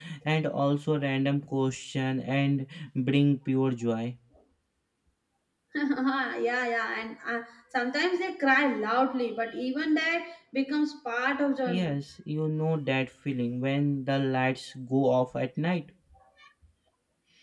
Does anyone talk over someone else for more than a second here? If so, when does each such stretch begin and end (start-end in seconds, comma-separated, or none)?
none